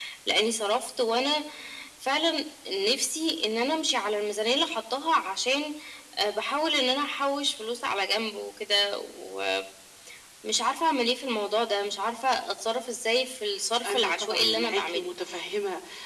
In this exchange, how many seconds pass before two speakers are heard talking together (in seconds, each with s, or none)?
13.8 s